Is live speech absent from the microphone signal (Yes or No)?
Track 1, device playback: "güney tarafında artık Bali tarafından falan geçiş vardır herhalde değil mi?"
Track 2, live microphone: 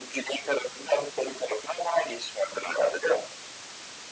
Yes